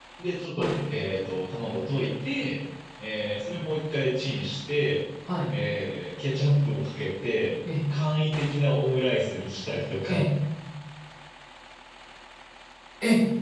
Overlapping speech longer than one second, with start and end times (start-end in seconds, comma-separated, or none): none